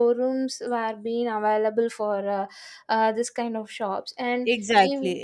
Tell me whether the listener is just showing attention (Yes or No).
No